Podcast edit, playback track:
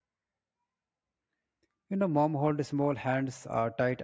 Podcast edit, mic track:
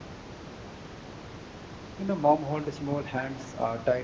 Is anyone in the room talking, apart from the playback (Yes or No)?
No